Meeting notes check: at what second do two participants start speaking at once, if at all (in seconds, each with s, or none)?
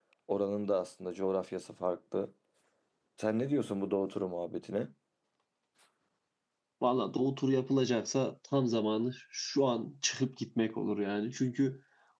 none